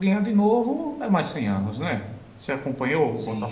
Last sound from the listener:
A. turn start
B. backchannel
A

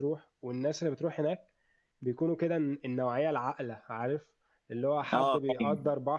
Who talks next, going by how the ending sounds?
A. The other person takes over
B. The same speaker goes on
B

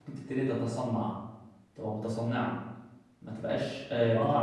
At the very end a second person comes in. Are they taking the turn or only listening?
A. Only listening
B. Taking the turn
B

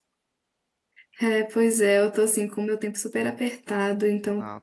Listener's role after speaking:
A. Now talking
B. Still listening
B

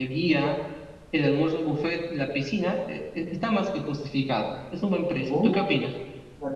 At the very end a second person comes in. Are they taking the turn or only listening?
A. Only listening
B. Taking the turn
B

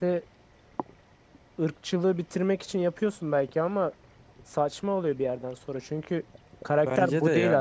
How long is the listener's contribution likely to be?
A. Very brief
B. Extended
B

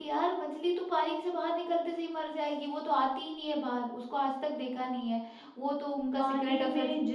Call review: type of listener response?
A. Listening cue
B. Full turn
B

